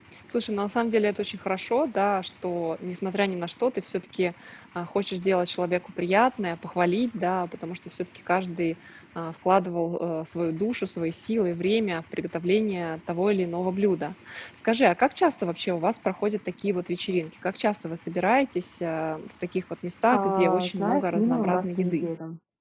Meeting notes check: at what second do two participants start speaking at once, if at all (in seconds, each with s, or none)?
20.1 s